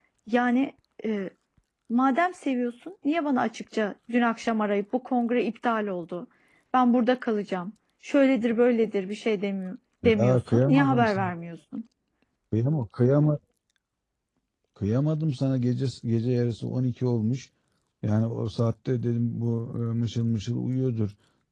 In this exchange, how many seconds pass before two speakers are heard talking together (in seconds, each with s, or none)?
10.0 s